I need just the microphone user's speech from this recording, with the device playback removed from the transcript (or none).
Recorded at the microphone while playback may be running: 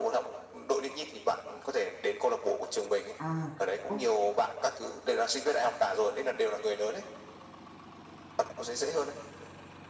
à ok